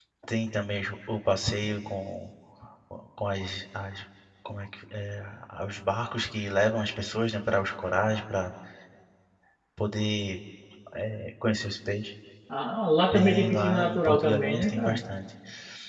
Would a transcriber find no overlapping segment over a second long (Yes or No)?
No